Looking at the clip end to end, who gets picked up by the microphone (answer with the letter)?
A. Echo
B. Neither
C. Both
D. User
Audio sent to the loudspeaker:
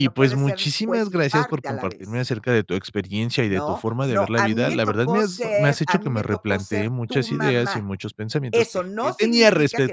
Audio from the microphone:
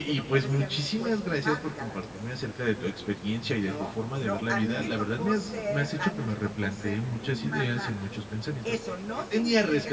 A